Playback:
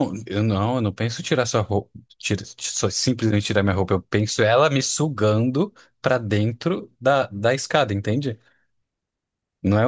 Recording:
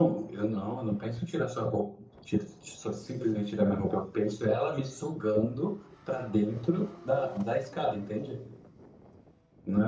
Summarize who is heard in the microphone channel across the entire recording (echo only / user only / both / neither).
echo only